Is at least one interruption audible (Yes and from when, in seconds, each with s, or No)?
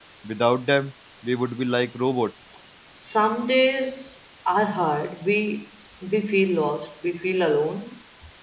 No